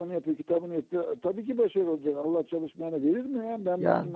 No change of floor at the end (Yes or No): Yes